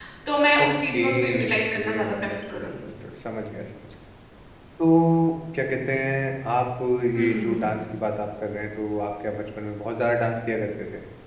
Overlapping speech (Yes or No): Yes